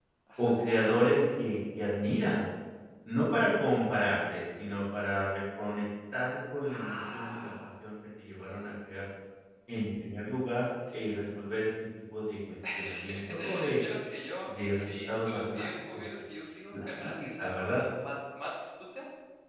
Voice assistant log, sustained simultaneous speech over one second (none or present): present